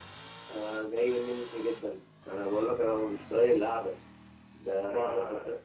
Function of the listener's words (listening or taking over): listening